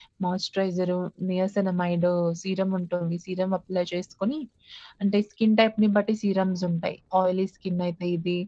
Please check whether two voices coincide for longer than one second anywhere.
No

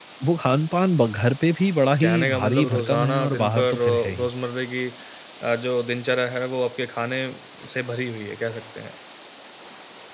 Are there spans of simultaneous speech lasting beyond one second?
Yes, from 1.9 s

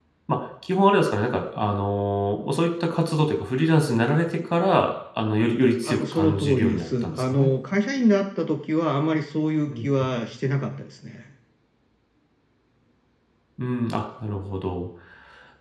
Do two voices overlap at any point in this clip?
Yes, from 5.9 s

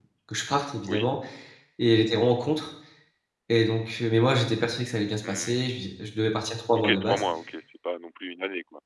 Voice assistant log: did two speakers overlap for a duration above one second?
No

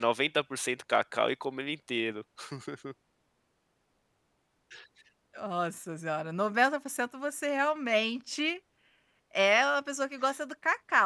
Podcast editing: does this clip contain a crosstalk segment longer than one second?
No

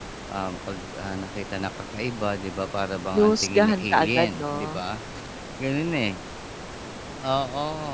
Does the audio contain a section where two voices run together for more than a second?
Yes, from 3.1 s

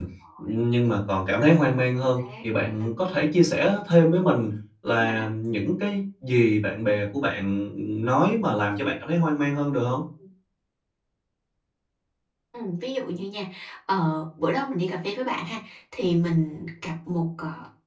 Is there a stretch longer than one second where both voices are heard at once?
No

